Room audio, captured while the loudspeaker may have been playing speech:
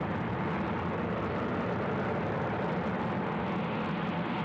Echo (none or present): none